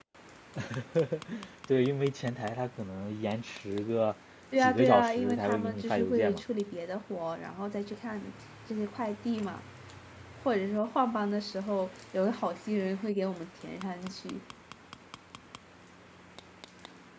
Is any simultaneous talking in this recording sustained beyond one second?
Yes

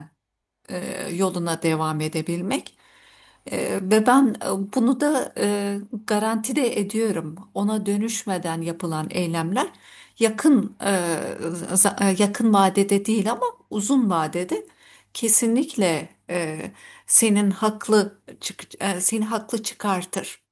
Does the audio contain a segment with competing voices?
No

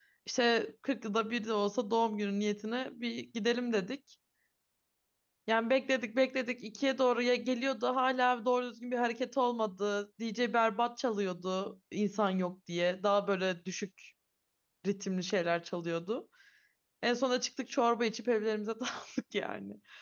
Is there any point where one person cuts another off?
No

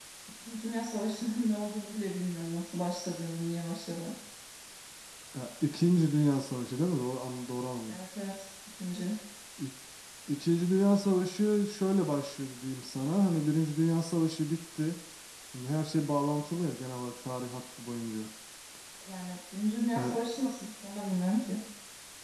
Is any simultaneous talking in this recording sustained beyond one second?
No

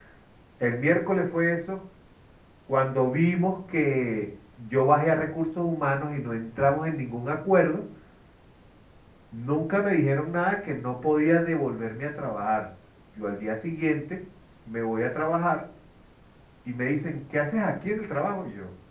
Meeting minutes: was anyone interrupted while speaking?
No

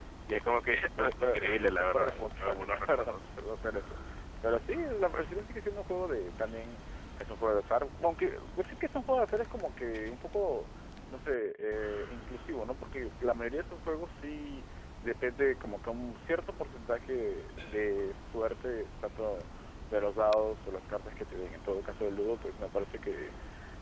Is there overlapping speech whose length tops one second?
Yes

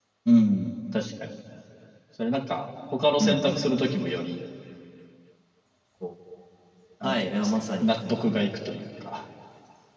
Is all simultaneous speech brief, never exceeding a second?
No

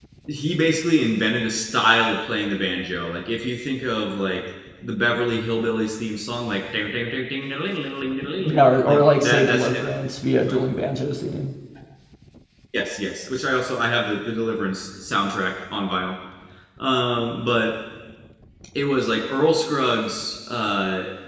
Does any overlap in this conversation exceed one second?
Yes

